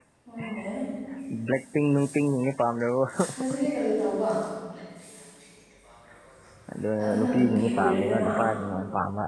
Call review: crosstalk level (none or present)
present